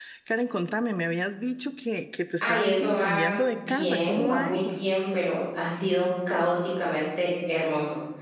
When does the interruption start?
2.4 s

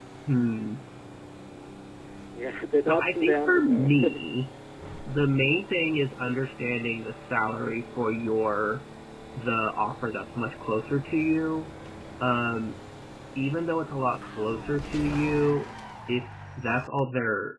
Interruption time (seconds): 2.8 s

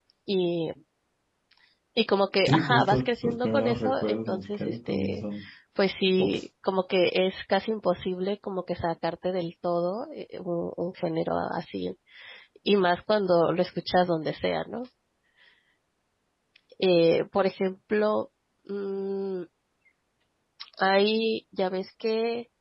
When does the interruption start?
2.5 s

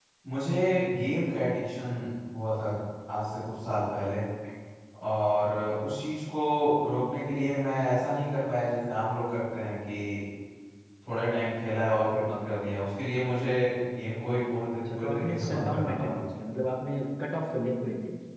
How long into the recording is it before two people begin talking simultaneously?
14.9 s

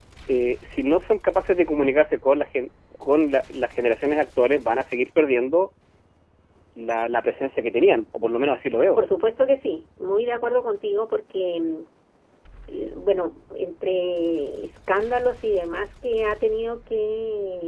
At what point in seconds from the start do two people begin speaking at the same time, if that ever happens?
none

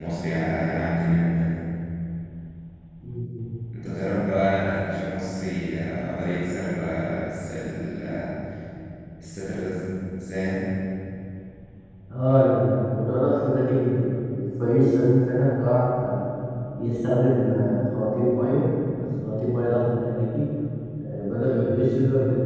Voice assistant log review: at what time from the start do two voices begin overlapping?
none

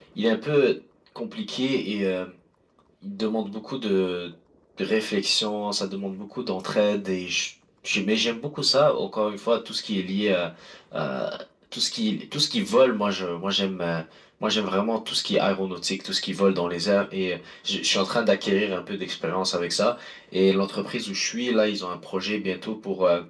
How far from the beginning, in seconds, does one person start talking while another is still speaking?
none

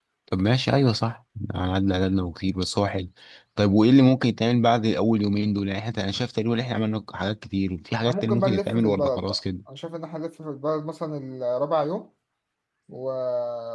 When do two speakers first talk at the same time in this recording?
8.1 s

